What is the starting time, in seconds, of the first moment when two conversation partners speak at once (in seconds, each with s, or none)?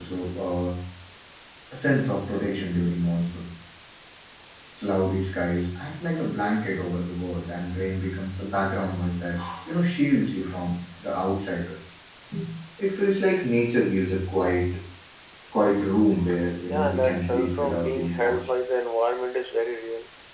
16.7 s